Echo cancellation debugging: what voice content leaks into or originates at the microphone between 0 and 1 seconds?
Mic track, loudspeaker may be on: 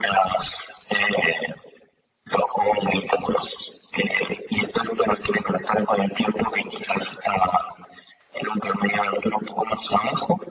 echo only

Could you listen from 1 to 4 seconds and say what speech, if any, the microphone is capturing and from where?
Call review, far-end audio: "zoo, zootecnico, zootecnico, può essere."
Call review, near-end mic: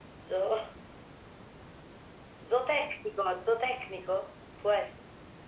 echo only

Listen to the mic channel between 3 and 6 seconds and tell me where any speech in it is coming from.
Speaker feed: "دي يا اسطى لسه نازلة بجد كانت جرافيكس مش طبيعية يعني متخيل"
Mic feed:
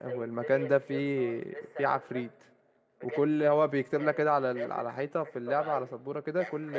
both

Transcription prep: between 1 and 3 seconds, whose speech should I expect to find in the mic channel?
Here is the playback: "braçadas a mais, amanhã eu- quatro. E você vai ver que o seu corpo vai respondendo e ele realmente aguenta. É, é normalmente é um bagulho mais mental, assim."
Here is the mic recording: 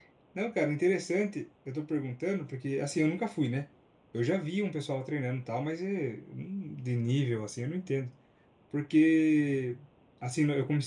user only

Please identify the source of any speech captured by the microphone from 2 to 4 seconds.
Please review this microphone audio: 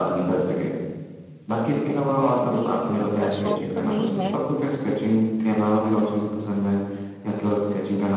both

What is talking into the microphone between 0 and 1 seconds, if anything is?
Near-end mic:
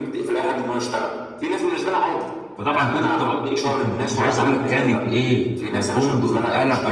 echo only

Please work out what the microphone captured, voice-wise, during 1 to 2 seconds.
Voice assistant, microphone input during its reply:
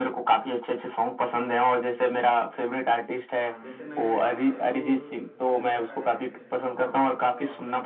echo only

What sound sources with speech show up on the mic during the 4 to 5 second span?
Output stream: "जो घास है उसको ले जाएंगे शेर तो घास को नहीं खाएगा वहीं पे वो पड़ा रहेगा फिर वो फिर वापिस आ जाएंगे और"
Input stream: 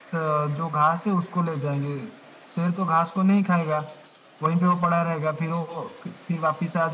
echo only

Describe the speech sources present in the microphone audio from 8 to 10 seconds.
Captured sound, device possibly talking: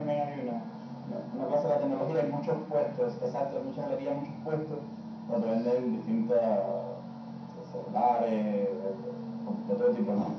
echo only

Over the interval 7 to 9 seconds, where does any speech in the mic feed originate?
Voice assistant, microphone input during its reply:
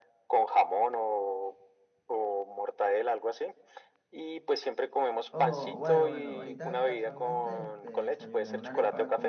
both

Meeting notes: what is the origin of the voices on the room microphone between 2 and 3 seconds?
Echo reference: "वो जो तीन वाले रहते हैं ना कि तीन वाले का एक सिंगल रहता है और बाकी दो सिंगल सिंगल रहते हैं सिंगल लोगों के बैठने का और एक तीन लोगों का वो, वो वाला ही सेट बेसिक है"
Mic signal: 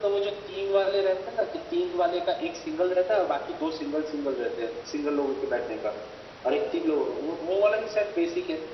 echo only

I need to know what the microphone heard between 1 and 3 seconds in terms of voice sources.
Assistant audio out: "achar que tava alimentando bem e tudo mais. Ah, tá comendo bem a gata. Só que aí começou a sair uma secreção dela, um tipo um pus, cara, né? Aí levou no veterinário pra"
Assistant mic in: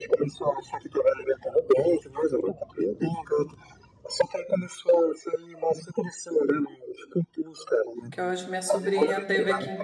echo only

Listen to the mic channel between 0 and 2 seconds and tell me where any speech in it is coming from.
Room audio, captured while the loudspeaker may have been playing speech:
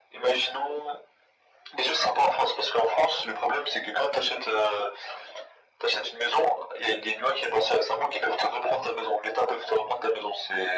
echo only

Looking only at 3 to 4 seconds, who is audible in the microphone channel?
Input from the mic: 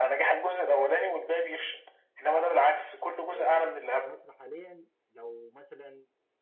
both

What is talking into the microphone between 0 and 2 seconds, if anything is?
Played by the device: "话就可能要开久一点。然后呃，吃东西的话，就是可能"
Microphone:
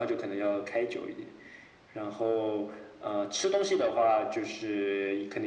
echo only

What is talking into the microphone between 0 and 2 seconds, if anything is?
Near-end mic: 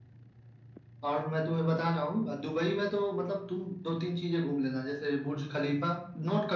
echo only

